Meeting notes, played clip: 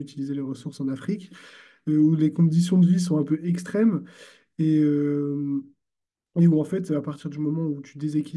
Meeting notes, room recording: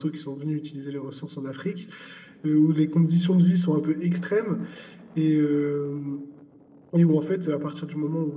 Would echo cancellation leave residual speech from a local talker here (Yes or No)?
No